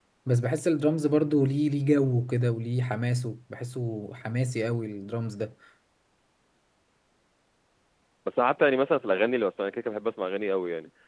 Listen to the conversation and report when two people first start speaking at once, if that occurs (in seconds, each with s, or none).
none